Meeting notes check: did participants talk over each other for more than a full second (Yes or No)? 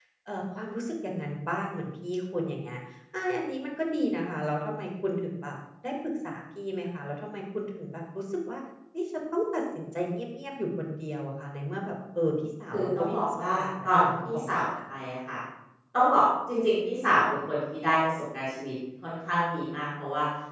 Yes